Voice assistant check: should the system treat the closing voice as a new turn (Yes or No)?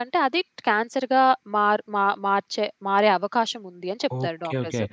Yes